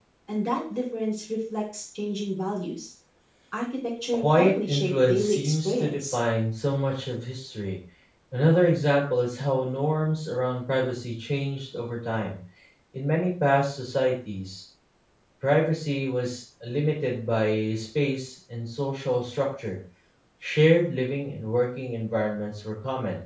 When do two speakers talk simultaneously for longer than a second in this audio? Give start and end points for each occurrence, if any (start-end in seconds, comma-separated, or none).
4.1-6.2